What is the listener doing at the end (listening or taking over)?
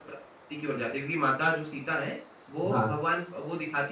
listening